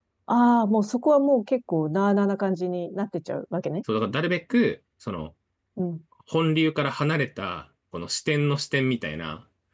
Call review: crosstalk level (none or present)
none